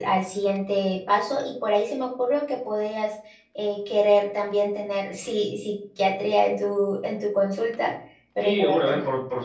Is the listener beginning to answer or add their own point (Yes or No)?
Yes